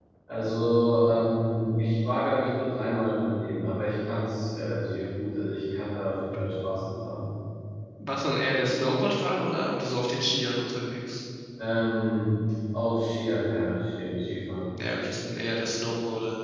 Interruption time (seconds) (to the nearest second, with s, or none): none